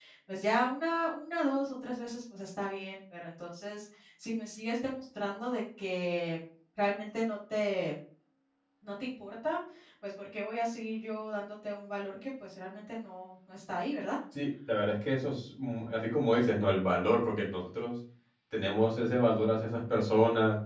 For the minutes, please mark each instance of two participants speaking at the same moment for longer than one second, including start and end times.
none

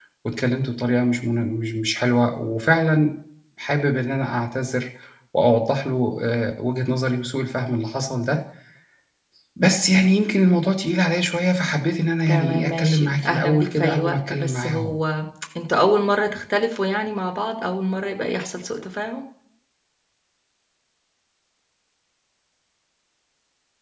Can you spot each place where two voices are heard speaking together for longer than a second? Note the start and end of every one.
12.3-14.9

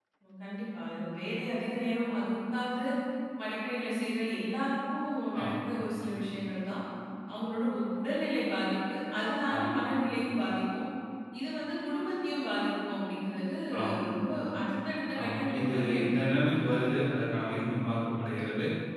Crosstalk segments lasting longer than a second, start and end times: 15.2-16.5

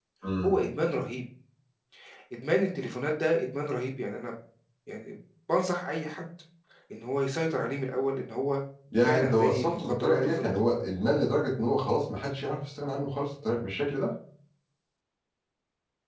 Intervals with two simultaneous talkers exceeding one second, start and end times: 9.0-10.4

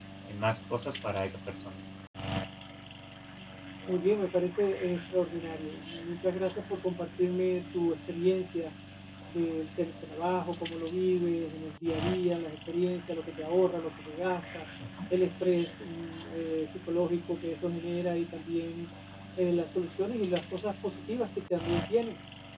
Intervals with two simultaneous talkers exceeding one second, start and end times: none

